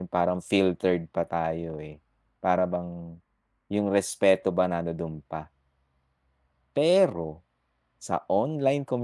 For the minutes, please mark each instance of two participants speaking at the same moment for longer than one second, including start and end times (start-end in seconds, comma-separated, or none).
none